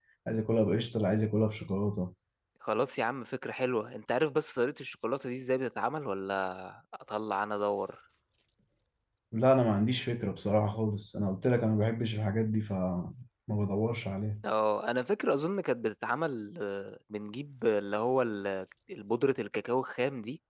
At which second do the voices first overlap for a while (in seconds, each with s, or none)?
none